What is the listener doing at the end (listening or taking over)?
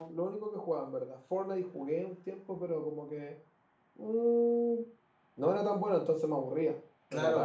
taking over